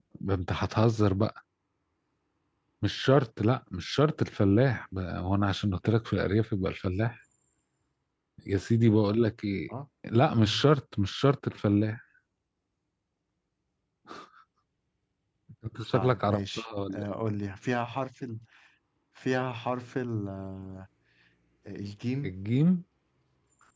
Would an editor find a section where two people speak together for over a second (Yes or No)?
Yes